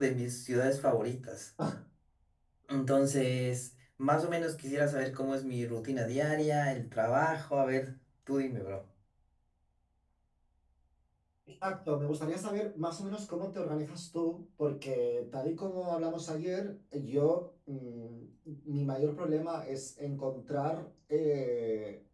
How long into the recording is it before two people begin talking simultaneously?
none

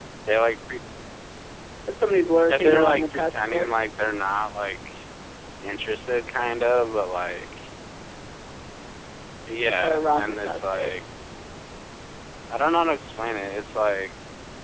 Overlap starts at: 2.5 s

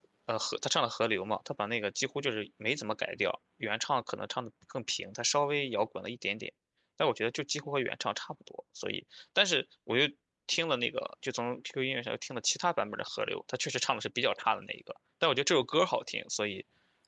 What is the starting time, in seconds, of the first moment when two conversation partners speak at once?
none

